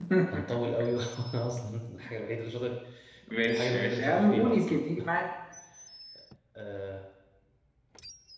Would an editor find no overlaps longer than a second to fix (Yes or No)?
No